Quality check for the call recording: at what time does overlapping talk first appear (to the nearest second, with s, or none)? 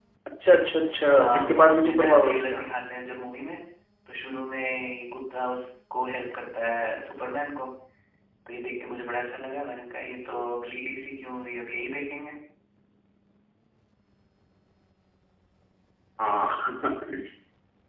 1 s